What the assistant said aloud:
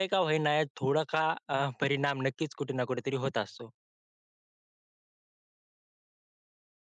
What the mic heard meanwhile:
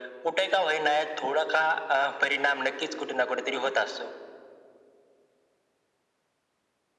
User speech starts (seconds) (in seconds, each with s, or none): none